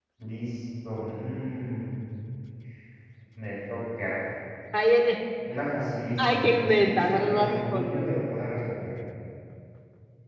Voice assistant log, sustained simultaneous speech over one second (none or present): present